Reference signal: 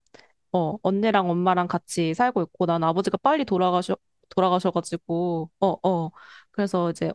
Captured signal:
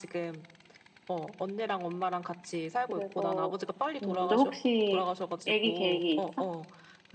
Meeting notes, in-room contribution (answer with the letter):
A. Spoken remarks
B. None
A